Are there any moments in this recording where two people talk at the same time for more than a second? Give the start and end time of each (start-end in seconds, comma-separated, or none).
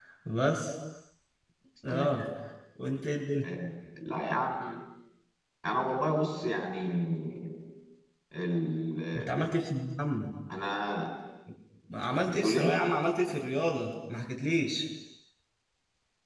none